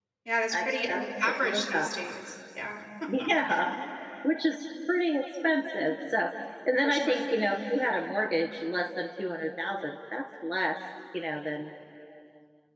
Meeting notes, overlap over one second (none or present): present